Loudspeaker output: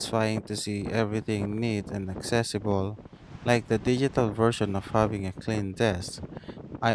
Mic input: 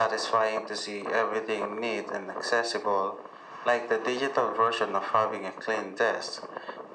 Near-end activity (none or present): none